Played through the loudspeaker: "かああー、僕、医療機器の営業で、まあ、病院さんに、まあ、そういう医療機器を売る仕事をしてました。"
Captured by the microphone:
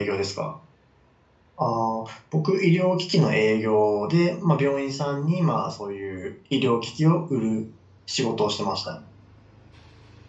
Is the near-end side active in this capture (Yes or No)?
No